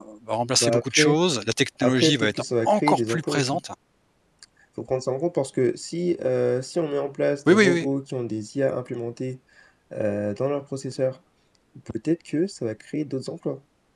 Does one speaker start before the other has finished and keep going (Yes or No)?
Yes